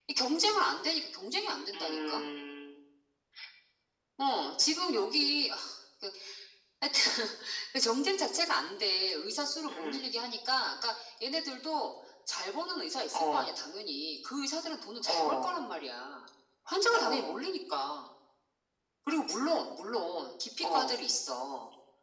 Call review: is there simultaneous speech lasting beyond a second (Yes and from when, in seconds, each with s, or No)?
No